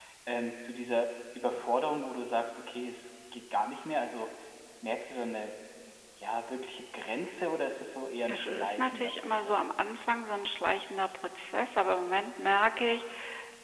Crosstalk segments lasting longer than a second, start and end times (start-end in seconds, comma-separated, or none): 8.3-9.6